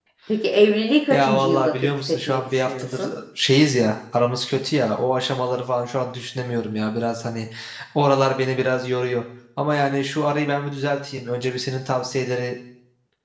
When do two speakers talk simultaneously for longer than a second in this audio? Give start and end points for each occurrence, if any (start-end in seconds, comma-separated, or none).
1.1-3.1